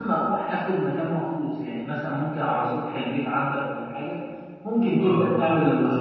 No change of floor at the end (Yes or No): Yes